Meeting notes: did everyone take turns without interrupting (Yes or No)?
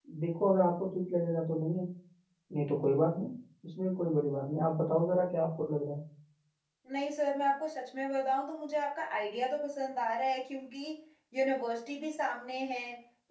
Yes